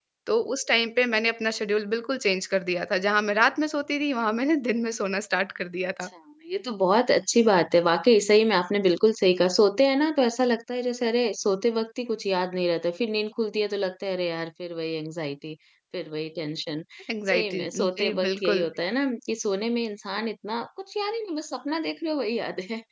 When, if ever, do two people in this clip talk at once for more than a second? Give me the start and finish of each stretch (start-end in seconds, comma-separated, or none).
17.3-18.6